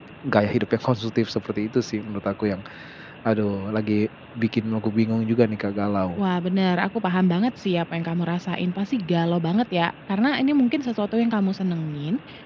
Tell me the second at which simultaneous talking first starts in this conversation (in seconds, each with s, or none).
none